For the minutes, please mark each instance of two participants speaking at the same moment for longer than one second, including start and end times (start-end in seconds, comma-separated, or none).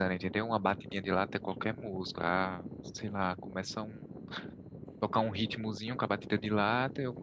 none